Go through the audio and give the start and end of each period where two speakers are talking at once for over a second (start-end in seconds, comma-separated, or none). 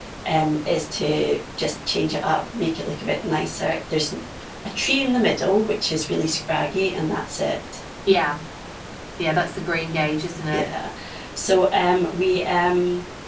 none